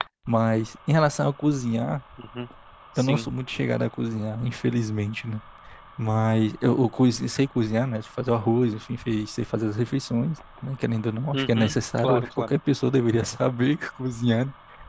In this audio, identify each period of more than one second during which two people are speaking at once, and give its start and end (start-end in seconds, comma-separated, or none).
11.3-12.5